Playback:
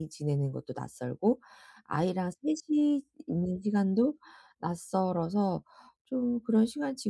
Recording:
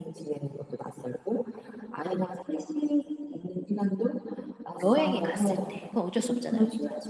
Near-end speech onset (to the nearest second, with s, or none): 5 s